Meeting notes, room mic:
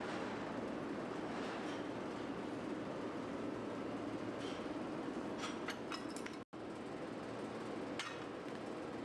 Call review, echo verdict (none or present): none